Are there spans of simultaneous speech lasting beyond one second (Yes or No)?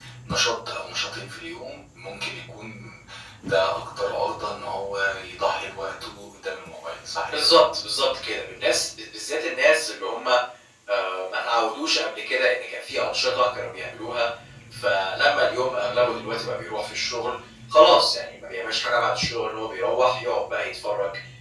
No